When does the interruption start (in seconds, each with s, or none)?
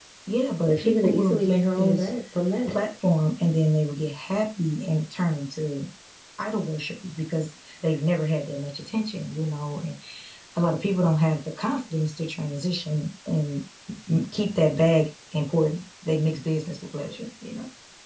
0.7 s